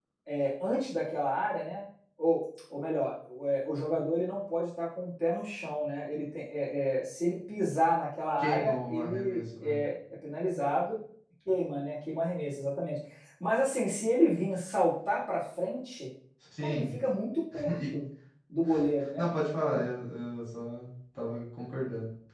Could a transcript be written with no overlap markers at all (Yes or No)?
No